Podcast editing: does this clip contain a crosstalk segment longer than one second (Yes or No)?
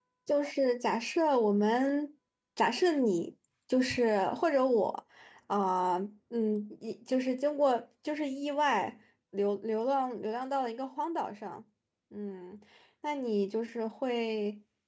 No